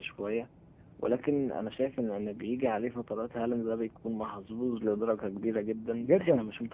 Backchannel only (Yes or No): No